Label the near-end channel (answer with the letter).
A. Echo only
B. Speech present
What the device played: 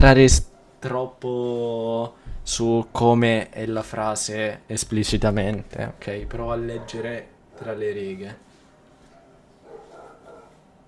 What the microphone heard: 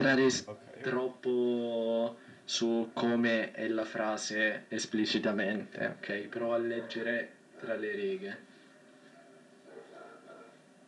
B